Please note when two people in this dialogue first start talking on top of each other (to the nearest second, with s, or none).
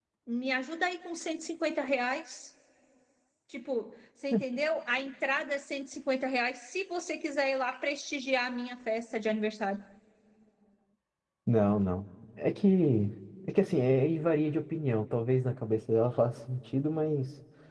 none